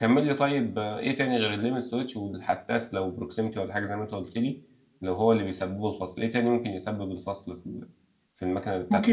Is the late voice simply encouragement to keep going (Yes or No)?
No